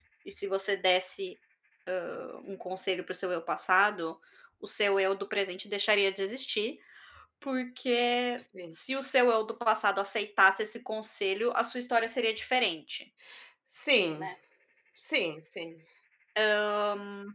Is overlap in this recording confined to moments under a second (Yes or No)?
Yes